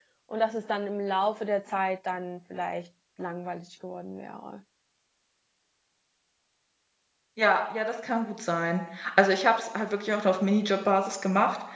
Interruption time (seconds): none

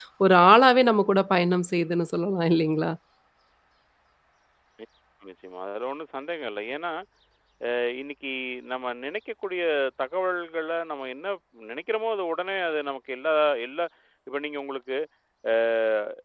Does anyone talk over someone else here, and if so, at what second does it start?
none

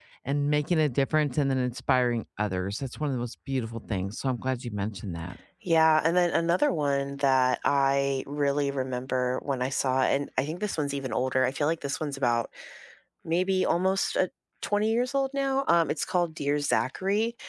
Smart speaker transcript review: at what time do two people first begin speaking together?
none

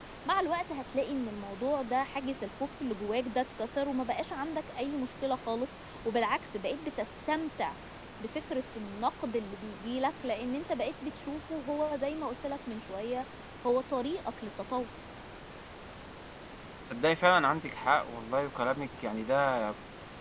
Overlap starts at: none

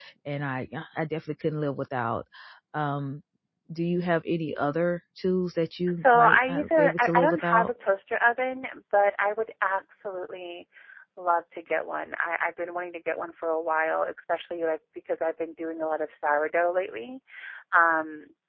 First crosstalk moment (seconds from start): 6.0 s

